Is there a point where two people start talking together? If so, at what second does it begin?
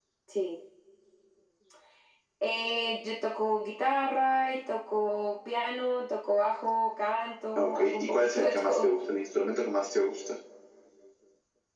7.6 s

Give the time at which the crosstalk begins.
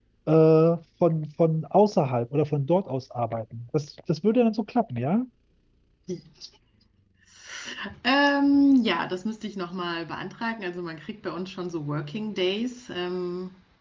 none

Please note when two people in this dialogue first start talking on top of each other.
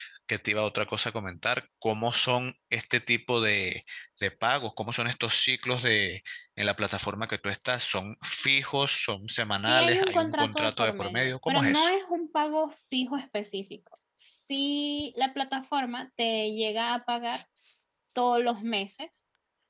9.5 s

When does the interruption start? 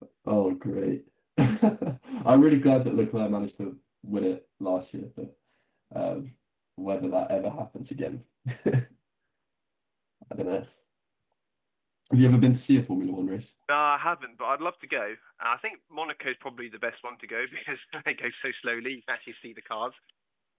none

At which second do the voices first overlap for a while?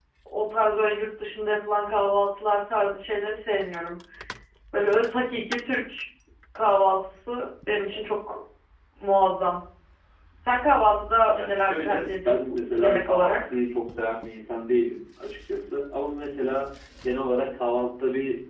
11.3 s

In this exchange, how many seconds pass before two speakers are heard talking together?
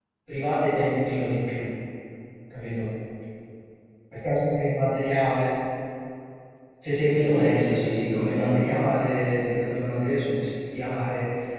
6.9 s

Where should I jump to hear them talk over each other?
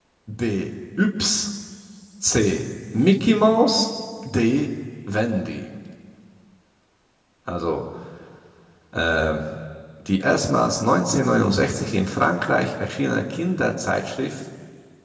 none

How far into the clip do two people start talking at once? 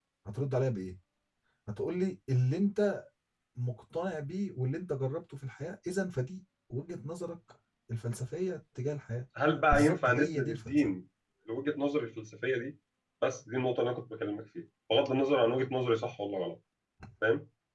9.7 s

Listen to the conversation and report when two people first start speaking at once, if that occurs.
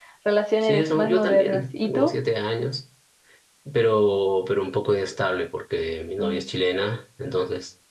0.6 s

